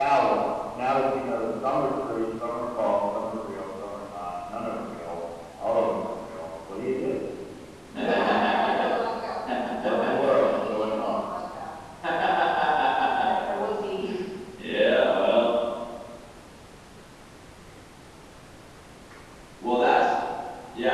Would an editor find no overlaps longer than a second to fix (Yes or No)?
No